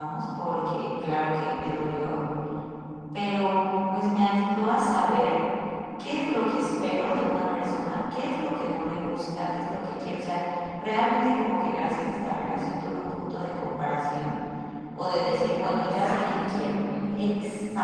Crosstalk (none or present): present